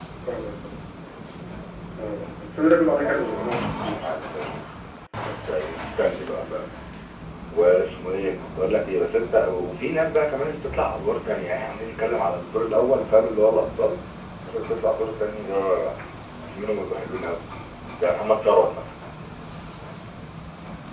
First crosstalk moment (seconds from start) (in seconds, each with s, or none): 3.0 s